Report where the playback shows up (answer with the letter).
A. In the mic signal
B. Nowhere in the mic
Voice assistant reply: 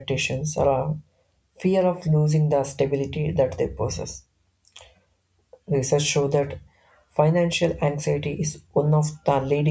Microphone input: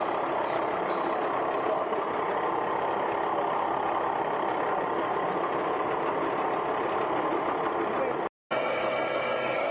B